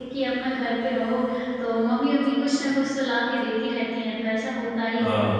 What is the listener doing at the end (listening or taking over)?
listening